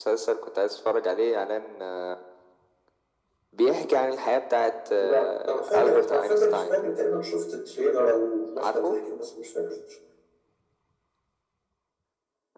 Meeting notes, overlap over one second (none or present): present